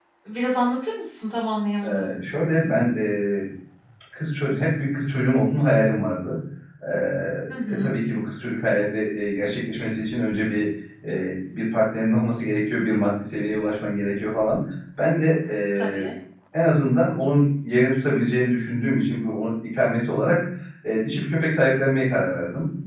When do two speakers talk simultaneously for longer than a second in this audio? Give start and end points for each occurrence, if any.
none

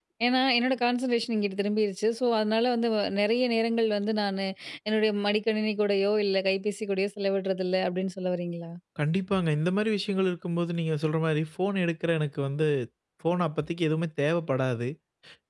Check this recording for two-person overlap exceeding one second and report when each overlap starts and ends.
none

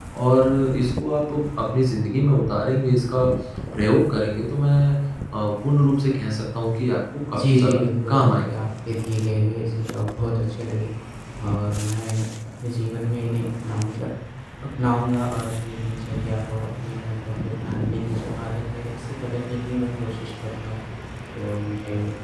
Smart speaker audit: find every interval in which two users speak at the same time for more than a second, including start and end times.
7.3-8.6

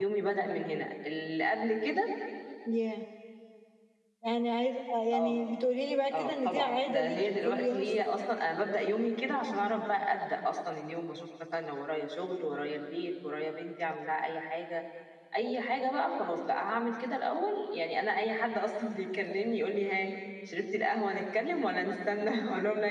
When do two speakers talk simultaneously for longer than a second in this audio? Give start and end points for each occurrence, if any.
6.1-8.1

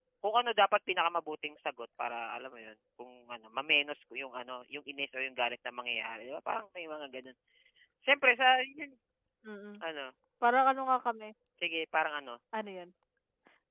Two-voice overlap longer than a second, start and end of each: none

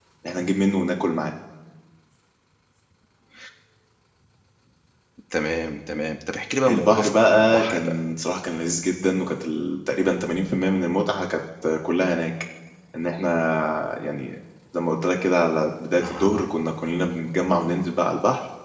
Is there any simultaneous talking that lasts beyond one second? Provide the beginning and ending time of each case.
6.7-8.0

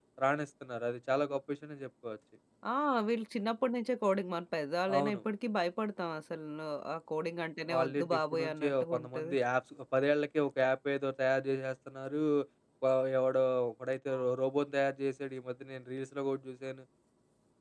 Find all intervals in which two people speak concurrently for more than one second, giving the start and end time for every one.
7.7-9.3

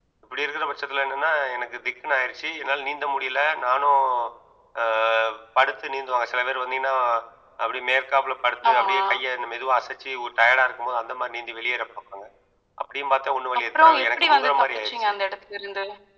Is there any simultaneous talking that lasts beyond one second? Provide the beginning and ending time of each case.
13.7-15.1

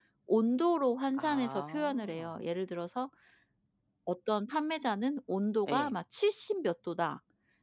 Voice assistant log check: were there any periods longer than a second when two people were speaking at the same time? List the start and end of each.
1.1-2.4

